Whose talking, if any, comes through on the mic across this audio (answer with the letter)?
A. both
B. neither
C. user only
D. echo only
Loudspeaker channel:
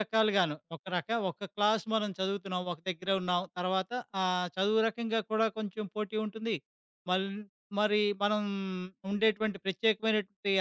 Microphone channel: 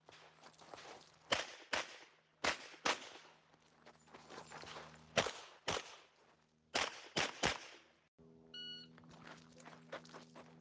B